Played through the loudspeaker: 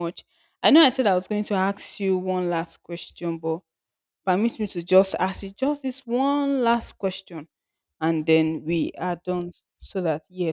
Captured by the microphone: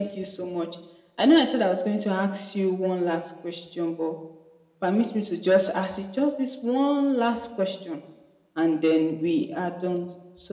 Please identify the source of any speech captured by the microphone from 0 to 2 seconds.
echo only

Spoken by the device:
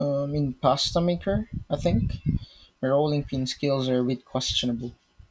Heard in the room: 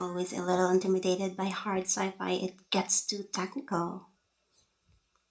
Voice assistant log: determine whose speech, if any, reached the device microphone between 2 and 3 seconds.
user only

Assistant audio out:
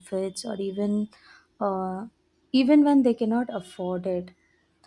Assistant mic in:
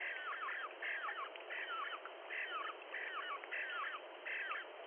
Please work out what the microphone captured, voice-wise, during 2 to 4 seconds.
neither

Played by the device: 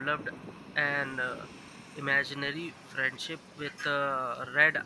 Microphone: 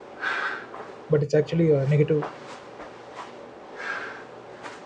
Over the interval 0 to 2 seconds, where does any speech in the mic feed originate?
user only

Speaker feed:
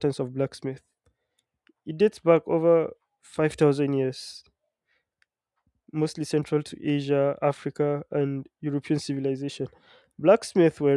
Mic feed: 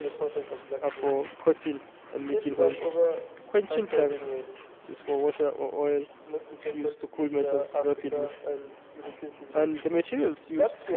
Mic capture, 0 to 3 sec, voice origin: both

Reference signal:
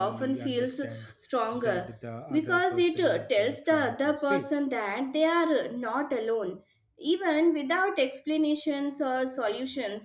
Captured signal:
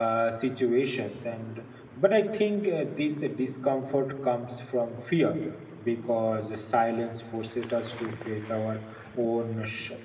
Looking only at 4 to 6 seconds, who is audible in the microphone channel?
user only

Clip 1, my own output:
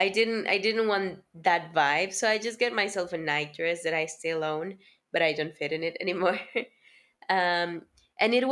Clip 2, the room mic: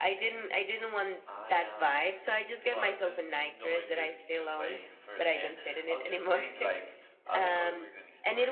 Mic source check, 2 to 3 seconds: both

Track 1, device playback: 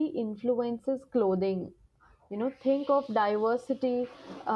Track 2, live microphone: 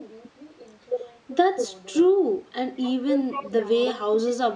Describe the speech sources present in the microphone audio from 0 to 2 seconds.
both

